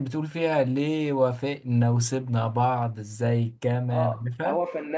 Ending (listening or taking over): taking over